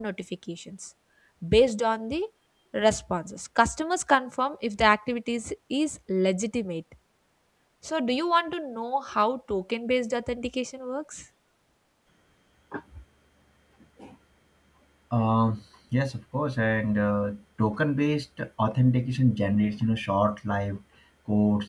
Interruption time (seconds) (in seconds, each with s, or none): none